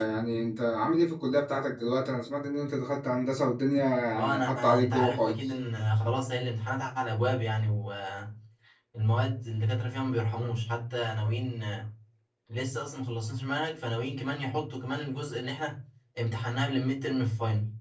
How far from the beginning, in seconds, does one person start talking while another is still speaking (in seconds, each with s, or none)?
4.1 s